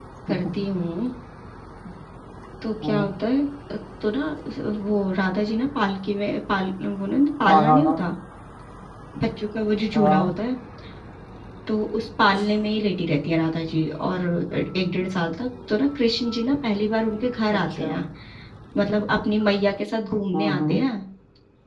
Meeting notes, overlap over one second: none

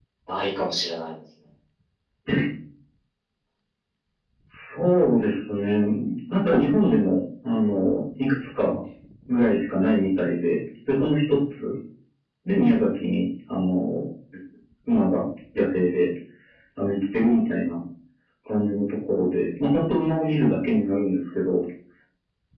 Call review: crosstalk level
none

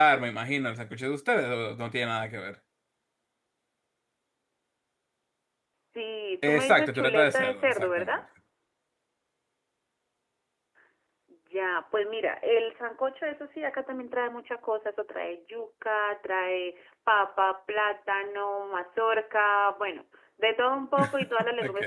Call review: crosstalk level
present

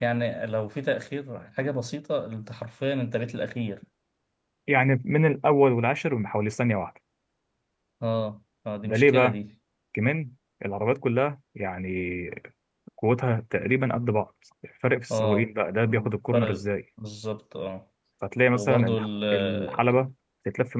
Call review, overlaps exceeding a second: present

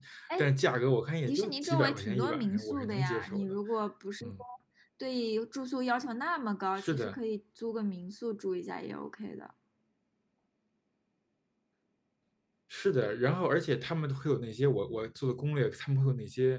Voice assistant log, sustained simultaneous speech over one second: present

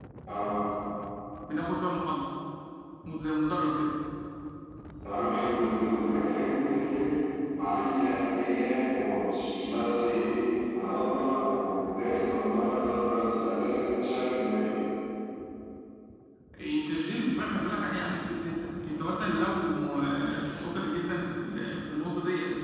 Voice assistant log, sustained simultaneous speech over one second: none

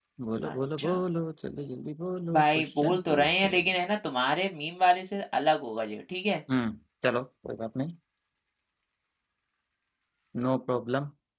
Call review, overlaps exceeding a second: present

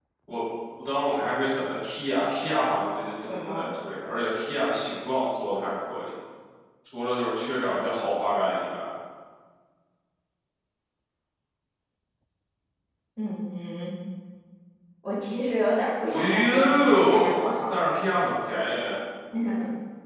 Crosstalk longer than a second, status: present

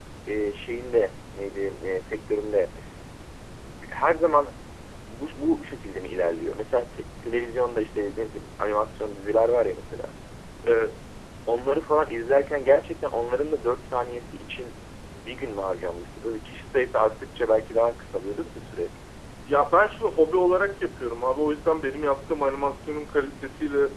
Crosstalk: none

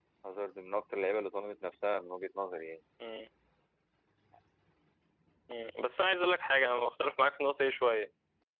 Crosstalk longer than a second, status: none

